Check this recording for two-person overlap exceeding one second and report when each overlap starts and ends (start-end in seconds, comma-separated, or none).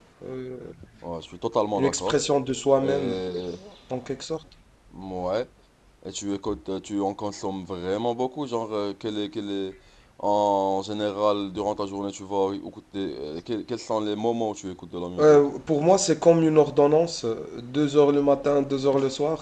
none